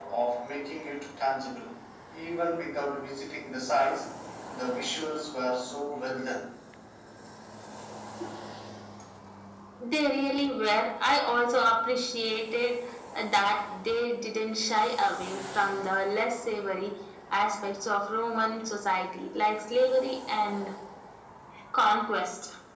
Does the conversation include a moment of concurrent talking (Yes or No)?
No